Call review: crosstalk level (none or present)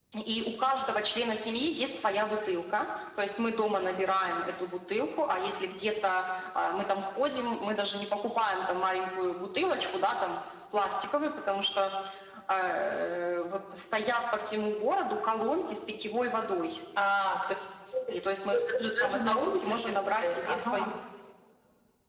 present